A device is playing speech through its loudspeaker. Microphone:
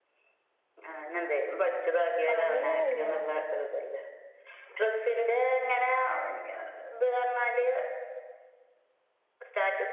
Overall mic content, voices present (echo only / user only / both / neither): both